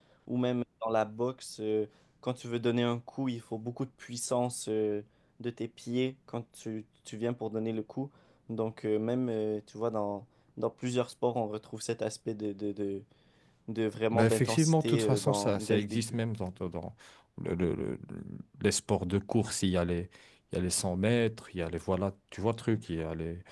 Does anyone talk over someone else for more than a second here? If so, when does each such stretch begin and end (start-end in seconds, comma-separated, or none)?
14.1-16.0